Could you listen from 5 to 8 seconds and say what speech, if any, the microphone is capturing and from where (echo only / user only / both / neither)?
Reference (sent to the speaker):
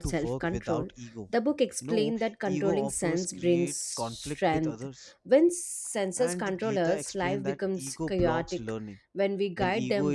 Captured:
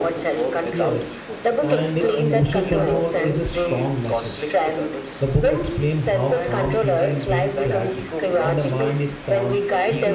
both